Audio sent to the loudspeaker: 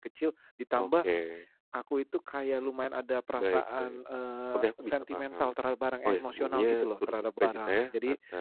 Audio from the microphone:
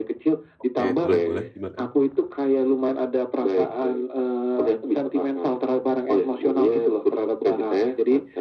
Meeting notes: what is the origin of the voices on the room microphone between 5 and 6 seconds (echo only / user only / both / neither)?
echo only